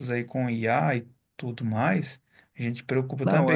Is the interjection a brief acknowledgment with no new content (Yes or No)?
Yes